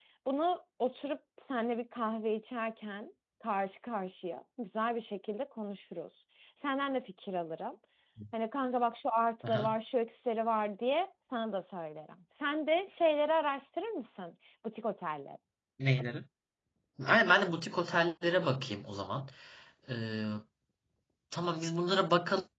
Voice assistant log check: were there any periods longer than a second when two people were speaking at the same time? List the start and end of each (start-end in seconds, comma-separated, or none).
none